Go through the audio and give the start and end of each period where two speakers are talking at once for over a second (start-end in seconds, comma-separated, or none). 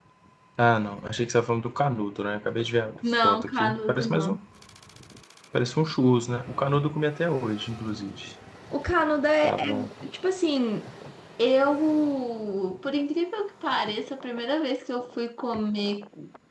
3.1-4.4